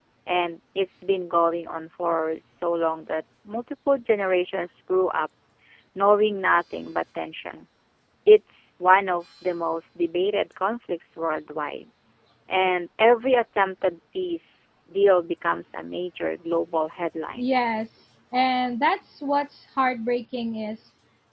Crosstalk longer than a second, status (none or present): none